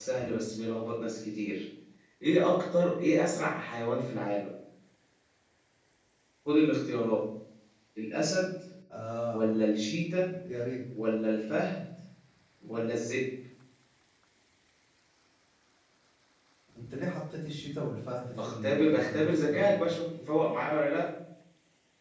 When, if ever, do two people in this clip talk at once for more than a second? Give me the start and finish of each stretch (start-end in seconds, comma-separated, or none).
18.4-19.7